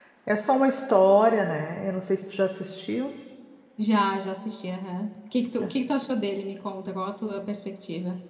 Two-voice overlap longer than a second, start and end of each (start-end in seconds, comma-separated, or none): none